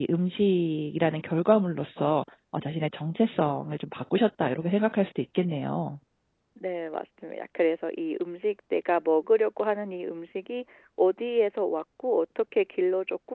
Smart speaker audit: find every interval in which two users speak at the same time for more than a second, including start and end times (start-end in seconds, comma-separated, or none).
none